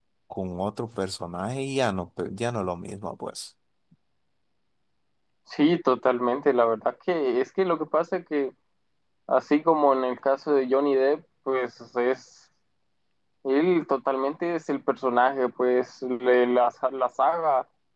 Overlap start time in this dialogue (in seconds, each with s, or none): none